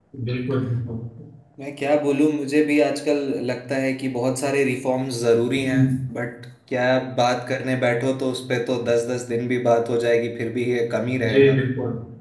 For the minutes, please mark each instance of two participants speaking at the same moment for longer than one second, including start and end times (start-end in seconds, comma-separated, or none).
none